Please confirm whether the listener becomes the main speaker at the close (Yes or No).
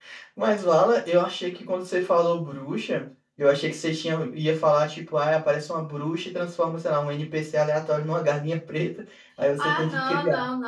Yes